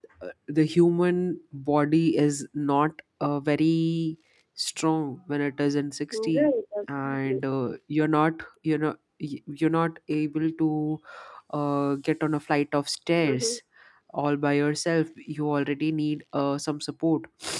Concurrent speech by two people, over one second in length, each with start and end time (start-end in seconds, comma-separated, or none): none